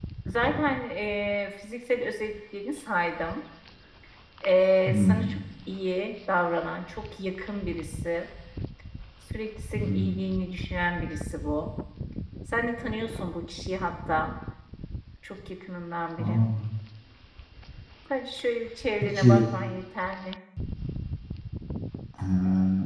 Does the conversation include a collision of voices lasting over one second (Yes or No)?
No